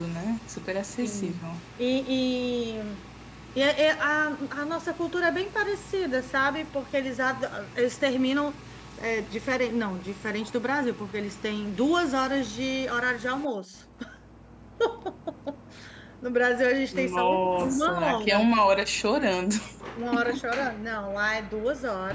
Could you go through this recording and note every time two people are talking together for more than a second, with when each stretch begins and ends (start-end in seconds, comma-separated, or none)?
16.9-18.5